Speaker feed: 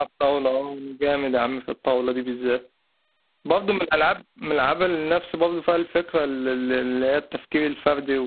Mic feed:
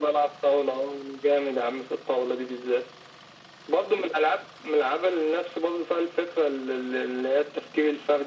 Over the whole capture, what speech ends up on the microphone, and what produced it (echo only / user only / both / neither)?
echo only